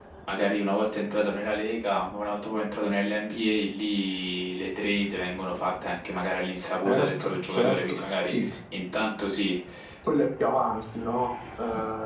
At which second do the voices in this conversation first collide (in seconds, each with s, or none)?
6.8 s